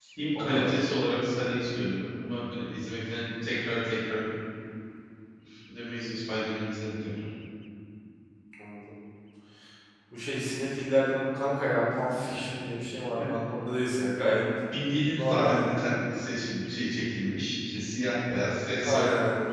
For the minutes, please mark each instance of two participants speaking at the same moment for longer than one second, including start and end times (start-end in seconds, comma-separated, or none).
none